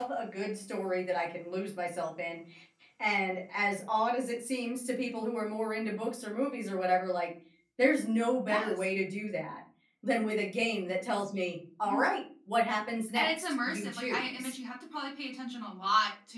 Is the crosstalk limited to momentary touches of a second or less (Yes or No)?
No